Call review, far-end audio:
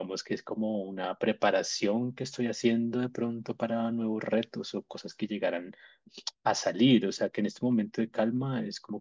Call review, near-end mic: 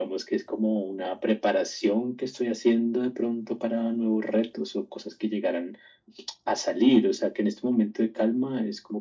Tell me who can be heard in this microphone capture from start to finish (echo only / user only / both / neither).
echo only